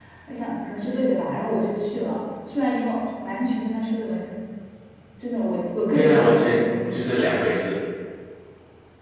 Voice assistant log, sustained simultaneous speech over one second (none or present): present